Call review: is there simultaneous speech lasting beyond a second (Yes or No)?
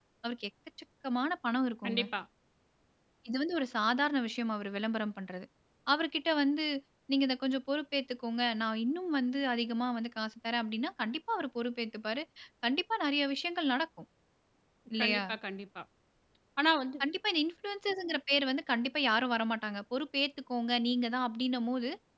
No